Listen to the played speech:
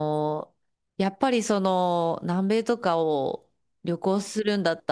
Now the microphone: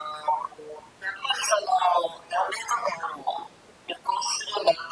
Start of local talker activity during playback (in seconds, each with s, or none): none